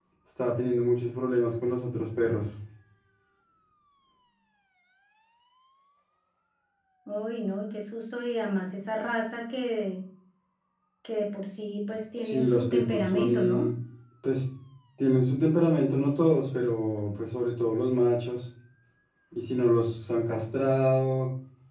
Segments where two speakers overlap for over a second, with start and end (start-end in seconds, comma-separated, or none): 12.2-13.7